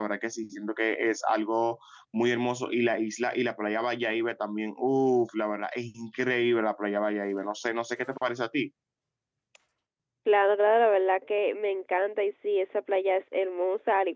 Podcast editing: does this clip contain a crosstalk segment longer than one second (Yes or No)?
No